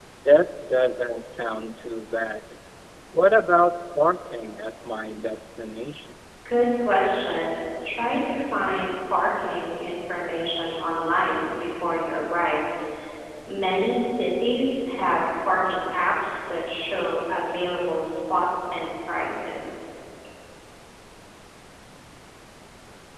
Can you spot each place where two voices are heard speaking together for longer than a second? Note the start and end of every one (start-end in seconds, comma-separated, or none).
none